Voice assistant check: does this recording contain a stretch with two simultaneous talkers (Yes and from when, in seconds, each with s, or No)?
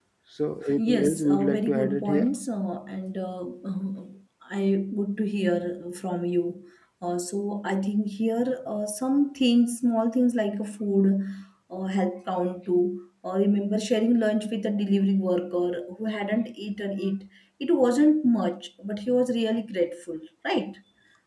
Yes, from 0.8 s